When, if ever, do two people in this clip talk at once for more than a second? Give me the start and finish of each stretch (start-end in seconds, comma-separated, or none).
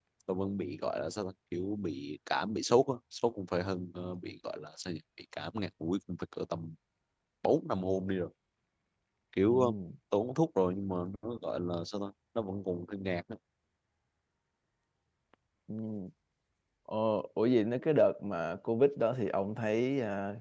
none